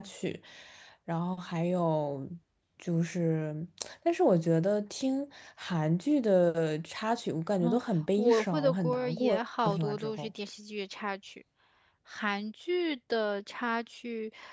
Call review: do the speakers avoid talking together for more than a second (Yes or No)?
No